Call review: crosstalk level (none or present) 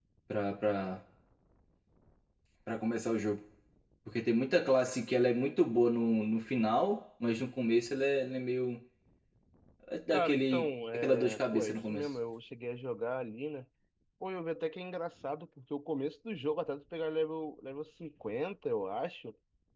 present